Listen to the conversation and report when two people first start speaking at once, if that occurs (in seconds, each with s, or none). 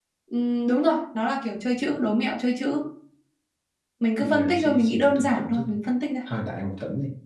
4.2 s